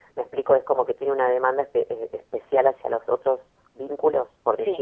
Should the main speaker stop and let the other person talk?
Yes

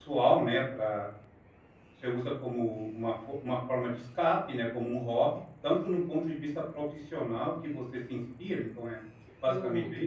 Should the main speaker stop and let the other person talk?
Yes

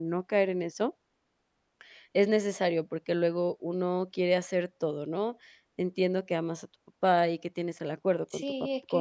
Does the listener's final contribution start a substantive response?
Yes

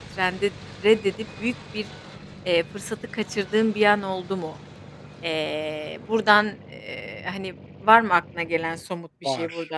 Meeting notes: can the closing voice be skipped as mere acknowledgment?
No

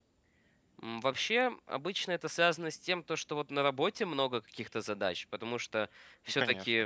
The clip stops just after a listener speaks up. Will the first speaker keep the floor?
Yes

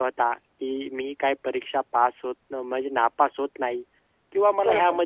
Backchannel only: Yes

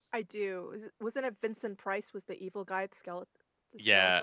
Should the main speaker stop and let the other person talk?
Yes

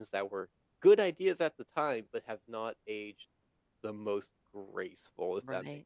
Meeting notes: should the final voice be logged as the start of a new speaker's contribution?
Yes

